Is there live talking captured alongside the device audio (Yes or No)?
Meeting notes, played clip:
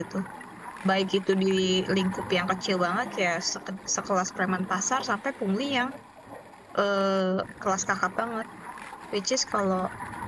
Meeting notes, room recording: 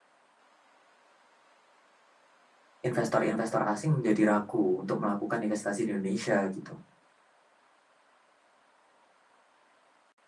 Yes